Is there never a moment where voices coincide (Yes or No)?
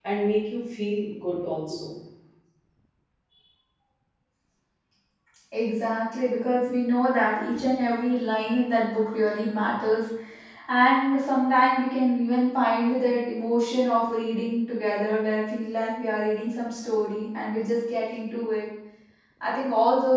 Yes